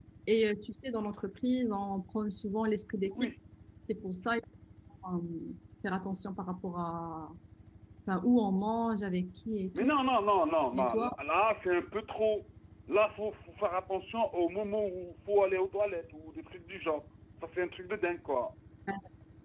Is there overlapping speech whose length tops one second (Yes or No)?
No